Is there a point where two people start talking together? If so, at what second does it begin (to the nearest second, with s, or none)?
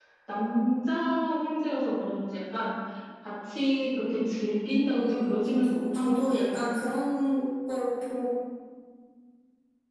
5 s